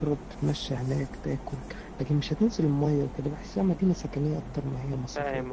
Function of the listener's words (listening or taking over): taking over